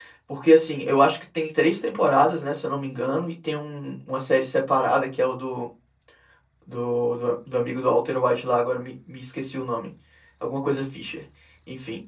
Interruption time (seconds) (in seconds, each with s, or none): none